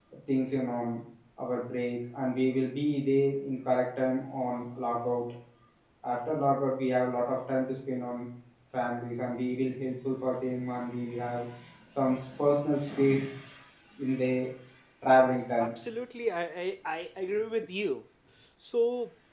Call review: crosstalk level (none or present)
none